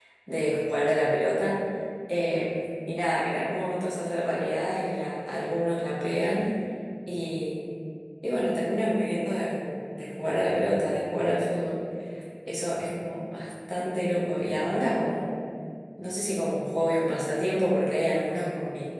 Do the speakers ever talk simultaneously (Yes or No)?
No